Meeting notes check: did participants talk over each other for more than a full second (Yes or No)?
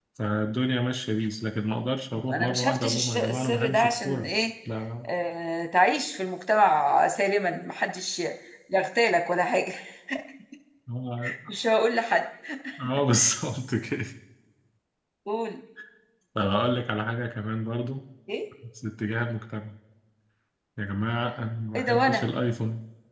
Yes